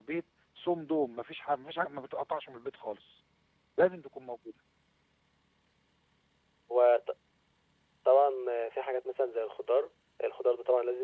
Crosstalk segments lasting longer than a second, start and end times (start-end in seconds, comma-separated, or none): none